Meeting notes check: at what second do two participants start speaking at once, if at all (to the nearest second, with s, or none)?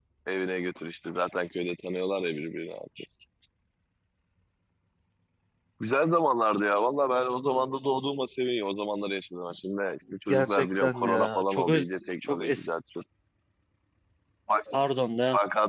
10 s